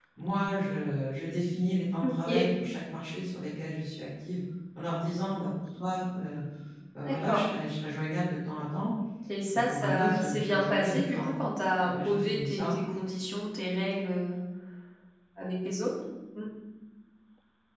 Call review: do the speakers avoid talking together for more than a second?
No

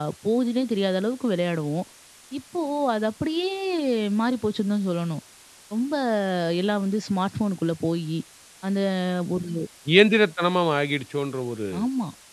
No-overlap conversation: Yes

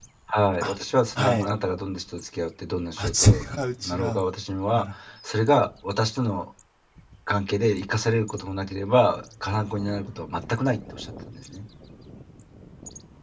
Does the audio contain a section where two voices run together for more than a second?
Yes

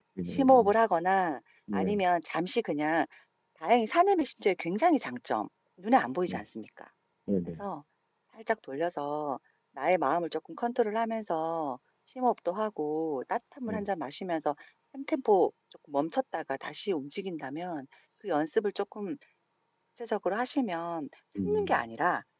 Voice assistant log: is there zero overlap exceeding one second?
Yes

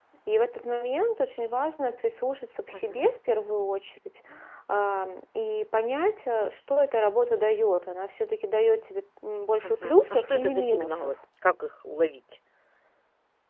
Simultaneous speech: Yes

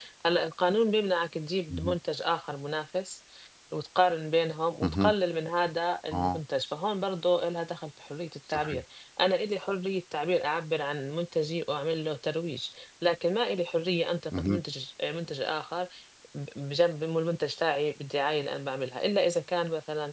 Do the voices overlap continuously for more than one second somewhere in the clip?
No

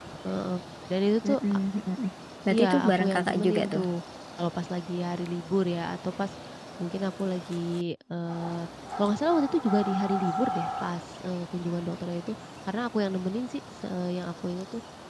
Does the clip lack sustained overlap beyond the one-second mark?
No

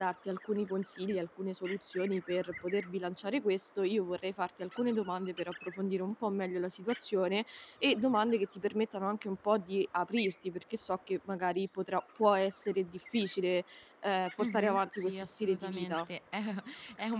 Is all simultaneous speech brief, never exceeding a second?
No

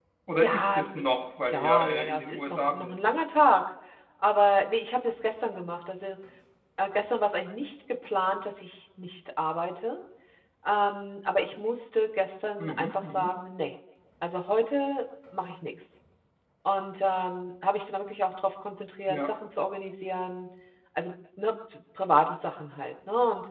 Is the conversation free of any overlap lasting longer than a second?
No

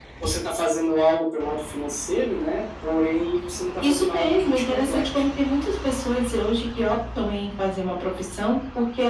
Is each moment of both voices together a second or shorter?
No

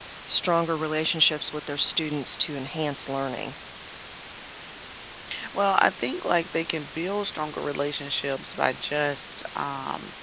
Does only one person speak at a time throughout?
Yes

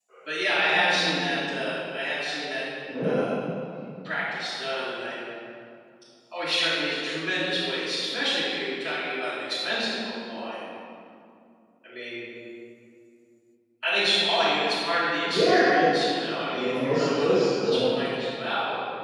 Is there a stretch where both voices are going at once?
Yes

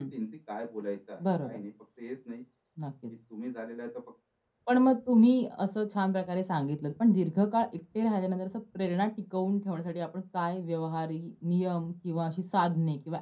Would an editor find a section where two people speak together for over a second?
No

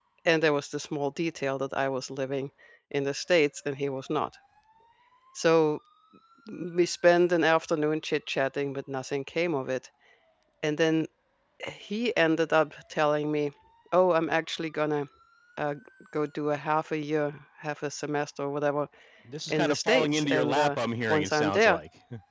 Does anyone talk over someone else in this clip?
Yes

